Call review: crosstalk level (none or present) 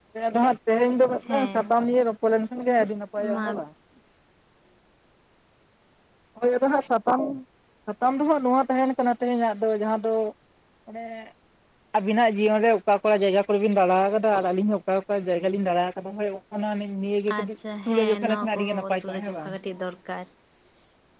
present